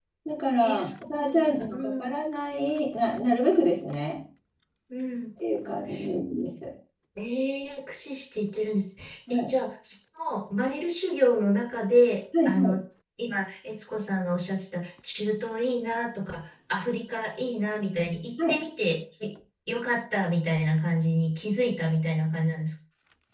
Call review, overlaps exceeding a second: present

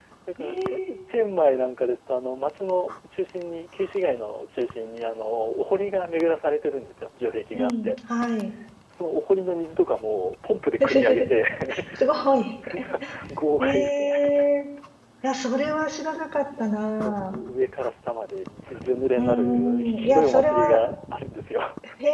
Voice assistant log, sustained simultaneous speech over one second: present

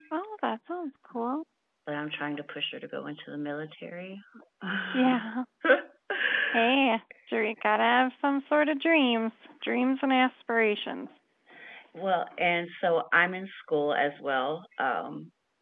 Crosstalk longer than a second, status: none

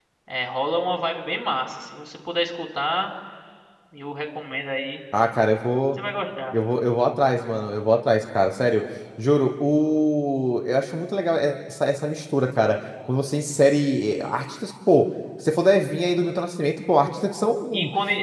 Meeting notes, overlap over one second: none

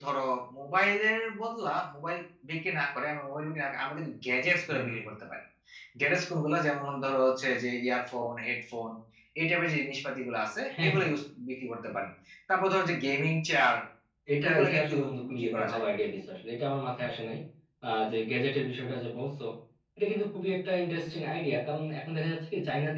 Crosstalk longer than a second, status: present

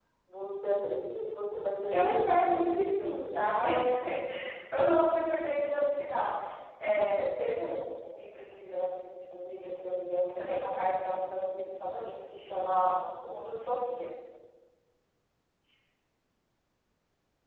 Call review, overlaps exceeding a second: present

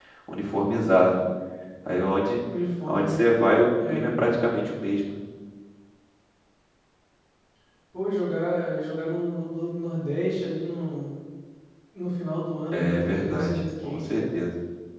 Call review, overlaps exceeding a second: present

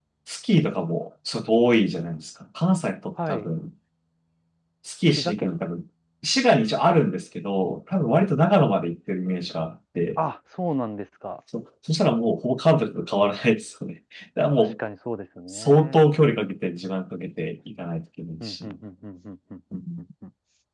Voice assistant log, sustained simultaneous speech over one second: none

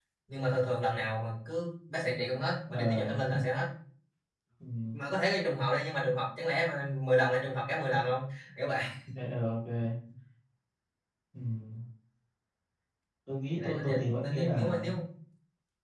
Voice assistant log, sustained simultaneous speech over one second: present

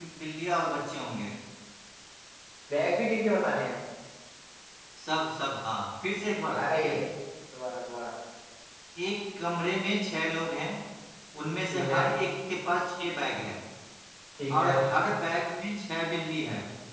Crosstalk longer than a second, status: none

